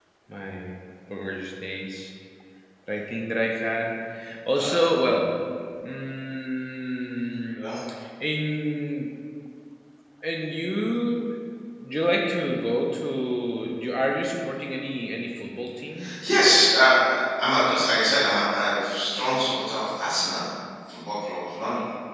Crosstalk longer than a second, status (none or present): none